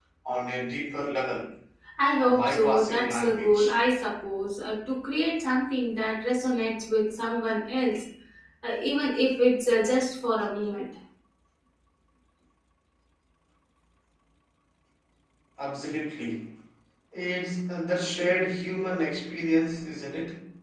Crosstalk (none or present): present